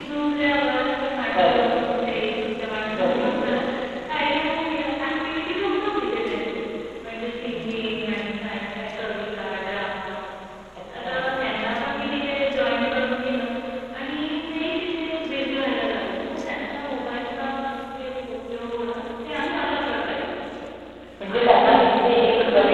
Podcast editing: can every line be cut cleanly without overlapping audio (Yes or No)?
No